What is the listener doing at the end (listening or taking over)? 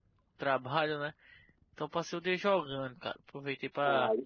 listening